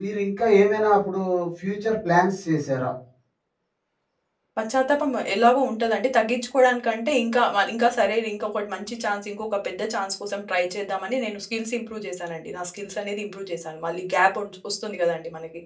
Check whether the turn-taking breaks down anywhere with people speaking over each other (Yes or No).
No